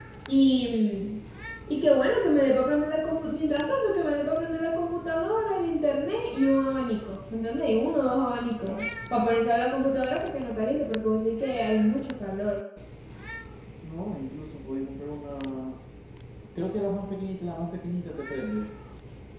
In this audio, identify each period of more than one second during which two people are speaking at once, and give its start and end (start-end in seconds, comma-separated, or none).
none